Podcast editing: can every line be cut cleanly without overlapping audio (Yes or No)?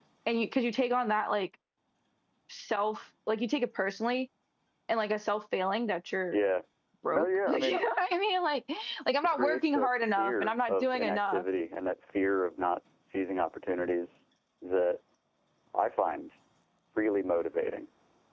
No